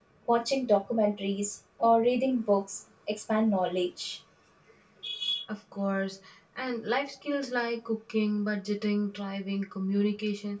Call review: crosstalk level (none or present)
none